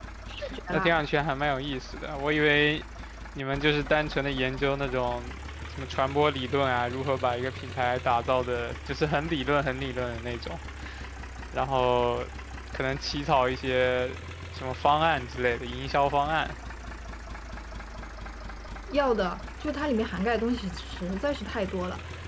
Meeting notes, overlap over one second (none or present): none